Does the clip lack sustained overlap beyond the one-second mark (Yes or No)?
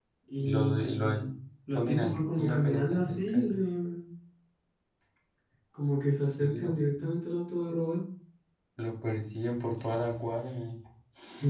No